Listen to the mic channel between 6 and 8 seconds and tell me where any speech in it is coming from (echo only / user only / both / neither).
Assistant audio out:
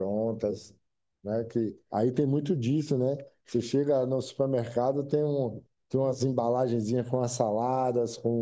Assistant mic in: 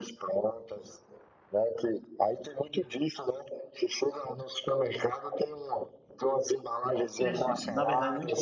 both